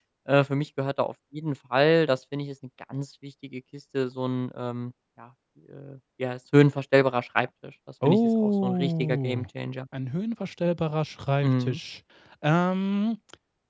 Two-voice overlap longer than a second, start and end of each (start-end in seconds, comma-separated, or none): 8.0-9.4